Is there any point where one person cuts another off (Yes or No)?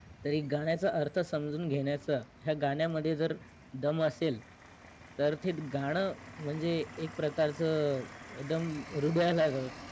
No